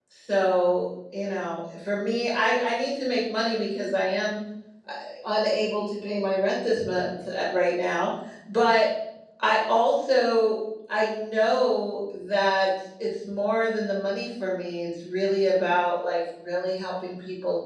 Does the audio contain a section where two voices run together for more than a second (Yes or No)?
No